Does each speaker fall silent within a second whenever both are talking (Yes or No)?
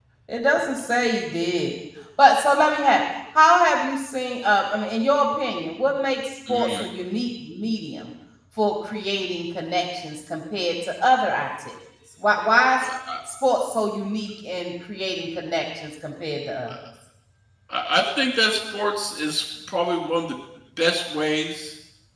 Yes